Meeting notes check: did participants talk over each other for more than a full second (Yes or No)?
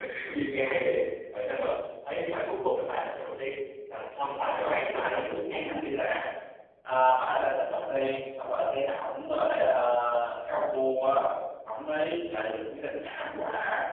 Yes